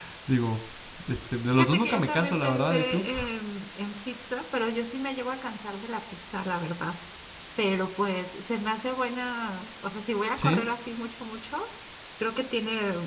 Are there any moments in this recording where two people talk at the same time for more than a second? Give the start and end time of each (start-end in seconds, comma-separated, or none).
1.6-3.0